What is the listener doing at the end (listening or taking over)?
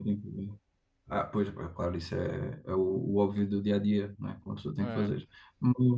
listening